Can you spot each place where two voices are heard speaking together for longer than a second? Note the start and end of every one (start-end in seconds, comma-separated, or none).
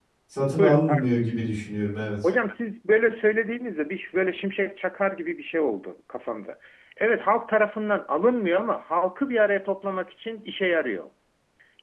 none